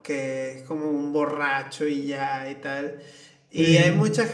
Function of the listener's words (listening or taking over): listening